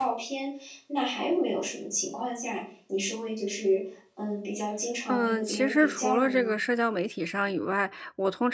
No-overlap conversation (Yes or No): No